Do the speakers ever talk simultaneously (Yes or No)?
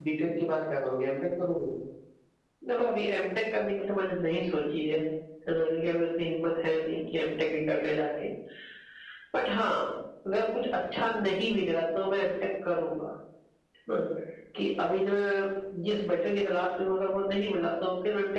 No